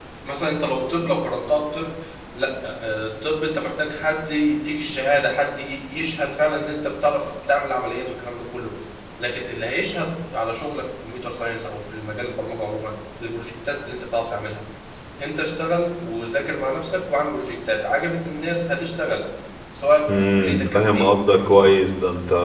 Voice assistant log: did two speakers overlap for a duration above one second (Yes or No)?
Yes